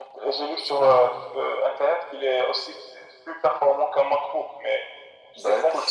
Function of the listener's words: taking over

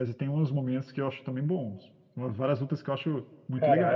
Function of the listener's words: taking over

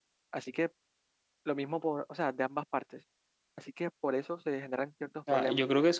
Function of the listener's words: taking over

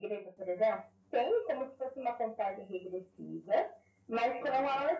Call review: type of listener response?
listening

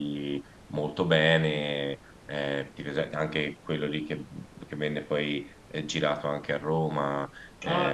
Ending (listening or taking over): taking over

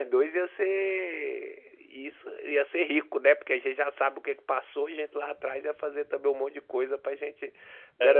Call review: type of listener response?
listening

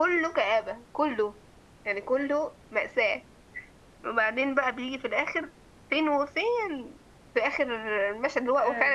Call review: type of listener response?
listening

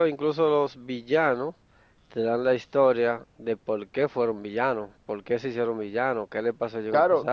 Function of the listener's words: taking over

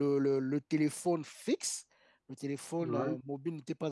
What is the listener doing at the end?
listening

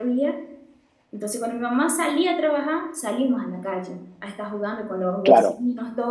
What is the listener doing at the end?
listening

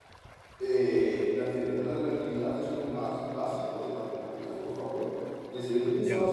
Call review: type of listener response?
taking over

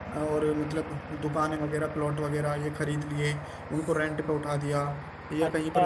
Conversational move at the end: taking over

